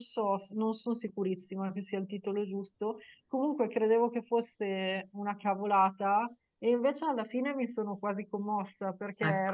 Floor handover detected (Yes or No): No